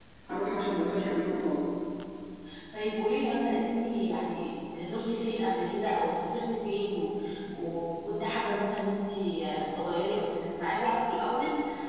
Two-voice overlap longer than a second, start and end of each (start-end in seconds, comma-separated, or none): none